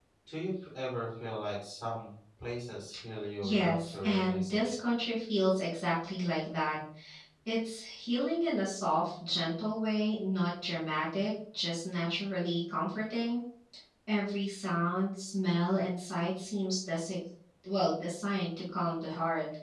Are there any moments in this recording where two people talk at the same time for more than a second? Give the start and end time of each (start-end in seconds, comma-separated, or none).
3.4-4.7